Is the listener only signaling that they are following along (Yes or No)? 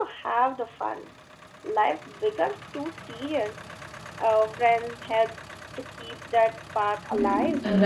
No